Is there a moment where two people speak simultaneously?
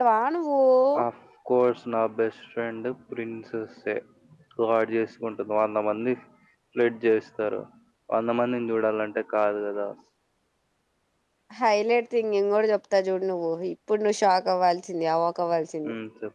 No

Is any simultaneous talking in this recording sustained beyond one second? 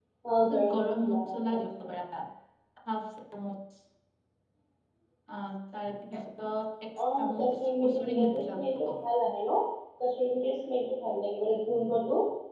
Yes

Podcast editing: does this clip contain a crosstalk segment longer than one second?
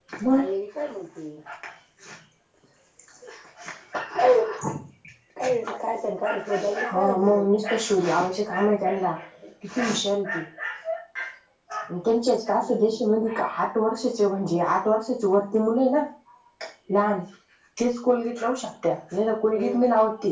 Yes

